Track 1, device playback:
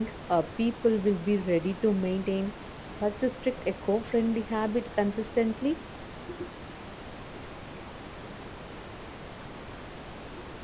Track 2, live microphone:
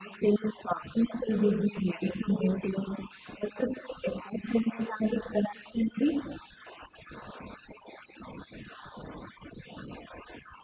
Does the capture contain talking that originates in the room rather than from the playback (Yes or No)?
No